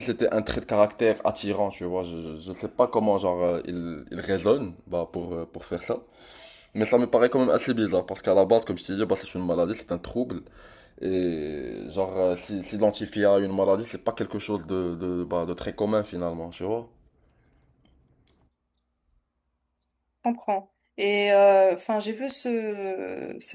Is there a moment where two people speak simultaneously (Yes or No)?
No